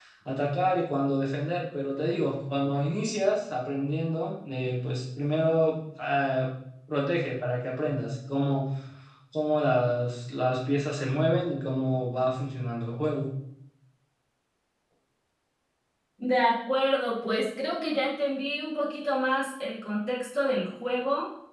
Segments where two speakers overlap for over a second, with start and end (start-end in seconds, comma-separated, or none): none